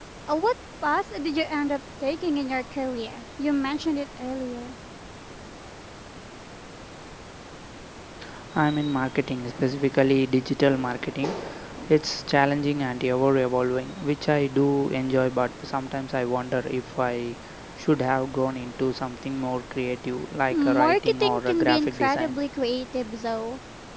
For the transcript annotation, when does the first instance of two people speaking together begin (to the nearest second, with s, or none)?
21 s